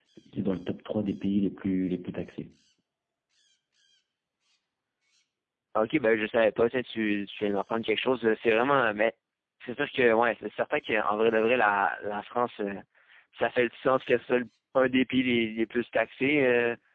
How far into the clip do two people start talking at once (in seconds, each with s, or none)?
none